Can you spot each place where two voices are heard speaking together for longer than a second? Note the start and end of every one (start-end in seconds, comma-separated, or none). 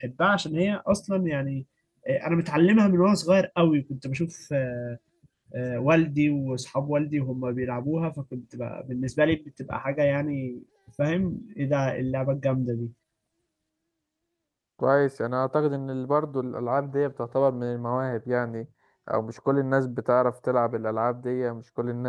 none